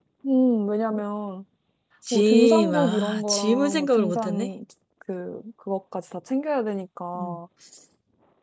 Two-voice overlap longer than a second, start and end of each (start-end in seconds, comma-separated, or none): 2.1-4.5